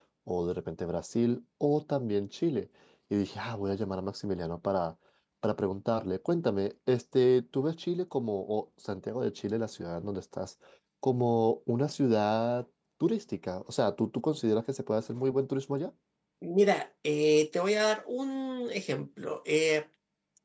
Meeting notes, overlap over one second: none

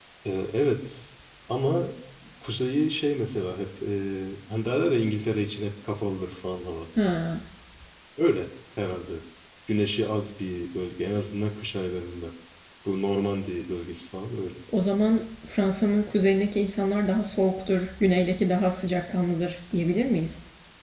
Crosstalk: none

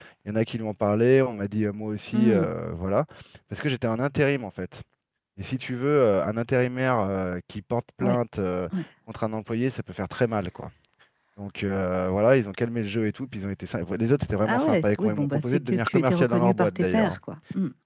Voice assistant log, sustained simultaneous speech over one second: present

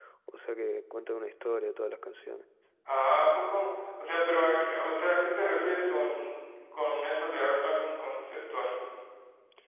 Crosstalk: none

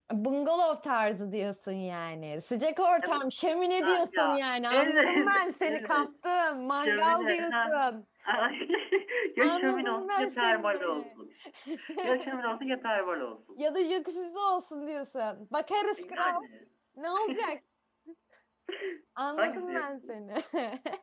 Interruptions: present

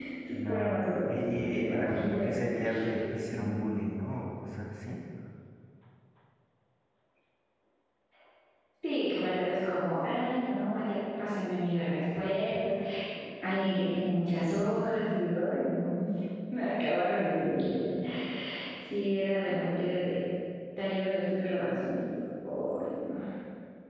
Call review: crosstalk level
present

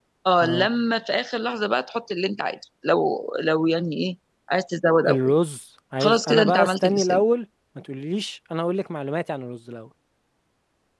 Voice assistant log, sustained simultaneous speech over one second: present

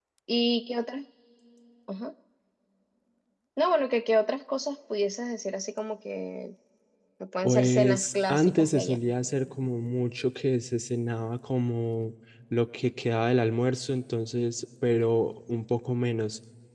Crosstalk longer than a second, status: present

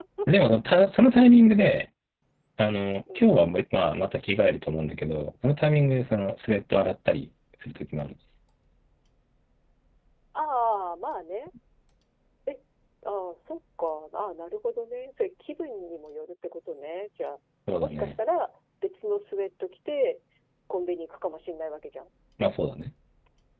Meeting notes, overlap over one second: none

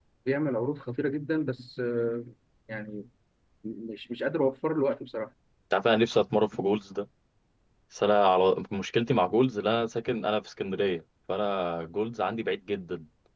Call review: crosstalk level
none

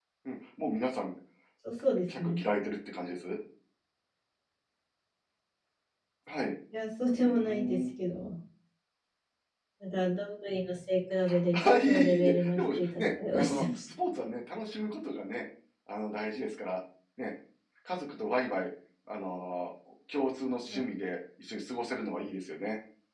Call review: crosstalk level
present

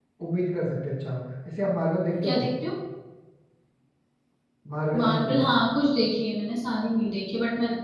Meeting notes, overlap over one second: none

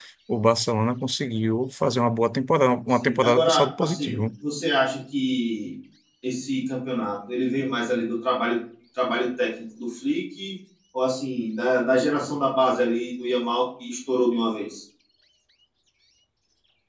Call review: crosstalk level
present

